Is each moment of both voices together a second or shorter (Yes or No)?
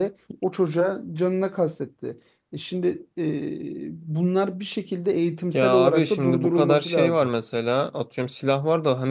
No